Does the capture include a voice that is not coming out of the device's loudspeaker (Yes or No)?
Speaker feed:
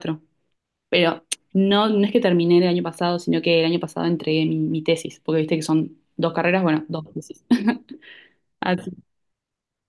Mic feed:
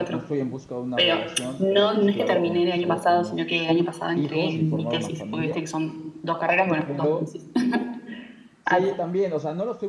Yes